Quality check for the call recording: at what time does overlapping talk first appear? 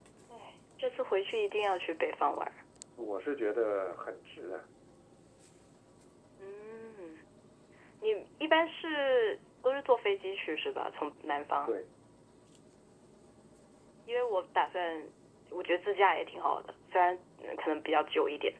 none

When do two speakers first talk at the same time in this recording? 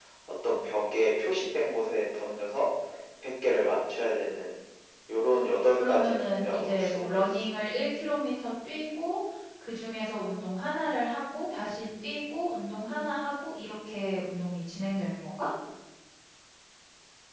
5.7 s

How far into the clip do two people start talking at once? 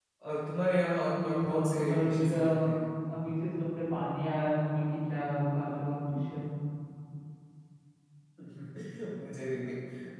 1.2 s

